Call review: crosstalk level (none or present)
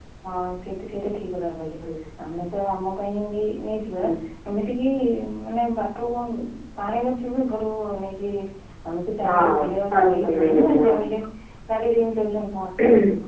present